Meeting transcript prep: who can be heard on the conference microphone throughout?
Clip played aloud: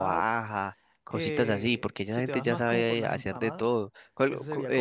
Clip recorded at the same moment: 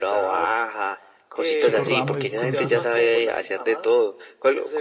both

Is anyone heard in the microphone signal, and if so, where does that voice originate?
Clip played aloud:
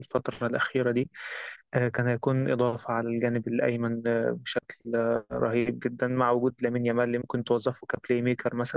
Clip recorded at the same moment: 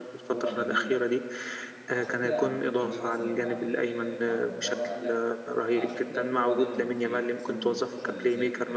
both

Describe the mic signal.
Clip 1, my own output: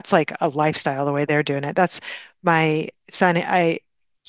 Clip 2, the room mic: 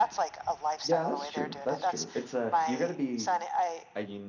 both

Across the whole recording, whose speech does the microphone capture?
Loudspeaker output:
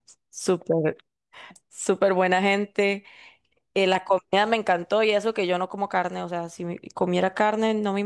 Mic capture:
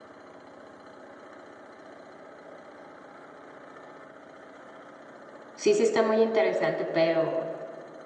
user only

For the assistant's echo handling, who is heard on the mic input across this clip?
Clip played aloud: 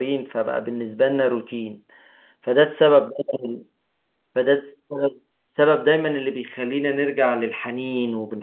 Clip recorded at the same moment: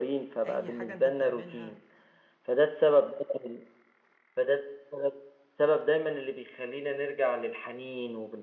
both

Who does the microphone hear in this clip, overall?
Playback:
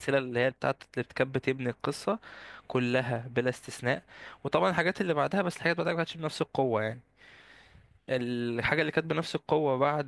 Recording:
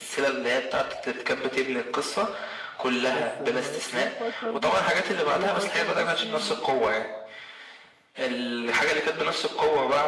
both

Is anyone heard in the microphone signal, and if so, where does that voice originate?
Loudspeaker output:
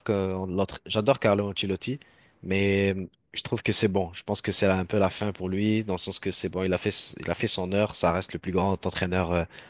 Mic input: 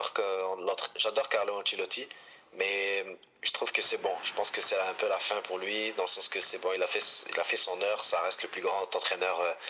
echo only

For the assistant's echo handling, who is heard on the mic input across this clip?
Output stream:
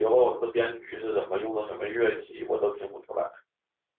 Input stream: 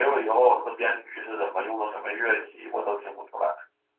echo only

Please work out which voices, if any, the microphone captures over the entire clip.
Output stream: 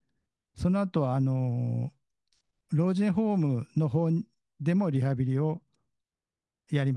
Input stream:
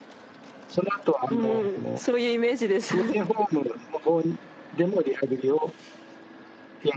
both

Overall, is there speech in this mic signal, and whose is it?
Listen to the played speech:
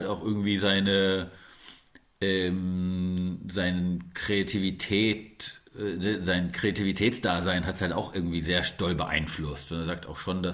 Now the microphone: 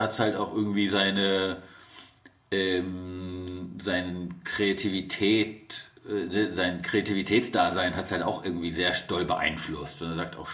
echo only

